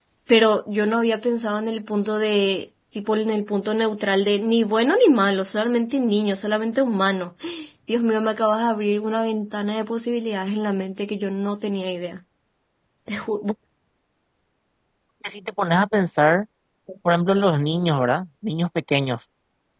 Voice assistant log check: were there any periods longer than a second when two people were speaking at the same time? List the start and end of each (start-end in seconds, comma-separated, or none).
none